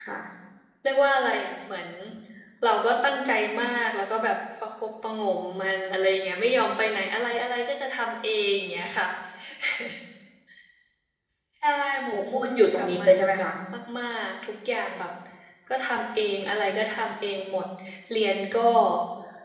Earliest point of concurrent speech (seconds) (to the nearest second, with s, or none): 12 s